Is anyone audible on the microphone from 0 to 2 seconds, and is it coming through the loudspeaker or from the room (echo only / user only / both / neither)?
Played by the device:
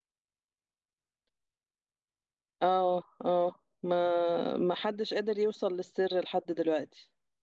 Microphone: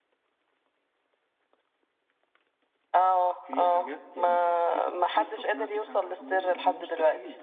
neither